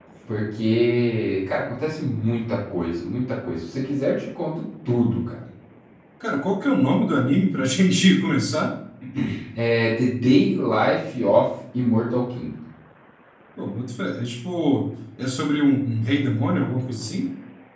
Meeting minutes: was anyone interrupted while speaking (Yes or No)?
No